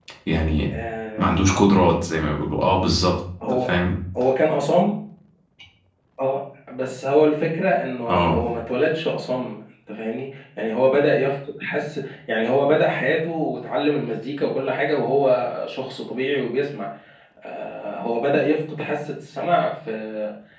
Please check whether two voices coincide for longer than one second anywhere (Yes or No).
No